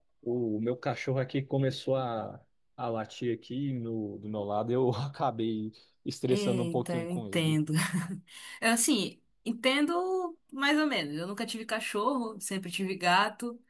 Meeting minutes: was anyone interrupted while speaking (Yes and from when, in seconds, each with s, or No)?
Yes, from 6.3 s